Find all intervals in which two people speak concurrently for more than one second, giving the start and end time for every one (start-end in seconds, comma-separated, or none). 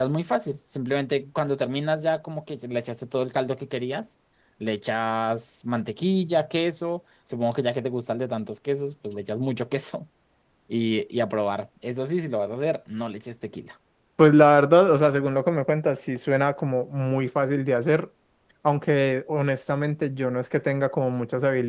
none